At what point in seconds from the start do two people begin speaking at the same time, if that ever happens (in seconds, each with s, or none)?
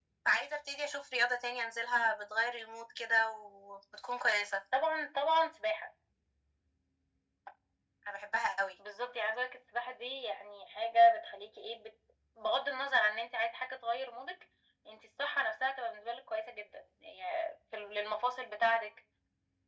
none